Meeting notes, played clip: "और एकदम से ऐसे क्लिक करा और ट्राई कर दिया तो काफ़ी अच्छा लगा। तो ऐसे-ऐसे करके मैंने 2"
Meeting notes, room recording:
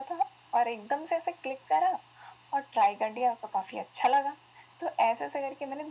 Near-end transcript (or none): none